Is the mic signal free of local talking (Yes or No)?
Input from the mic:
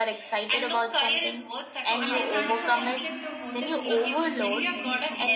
No